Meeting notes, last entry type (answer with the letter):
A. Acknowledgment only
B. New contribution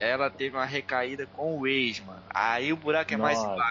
A